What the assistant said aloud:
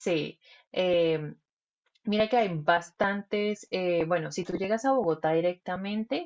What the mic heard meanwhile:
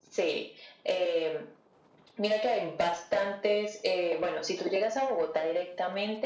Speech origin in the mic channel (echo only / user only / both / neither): echo only